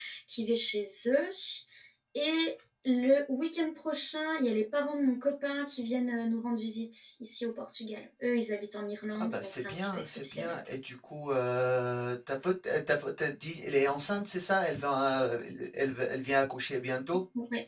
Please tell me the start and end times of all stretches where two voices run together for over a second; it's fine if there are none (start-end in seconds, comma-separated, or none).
9.2-10.6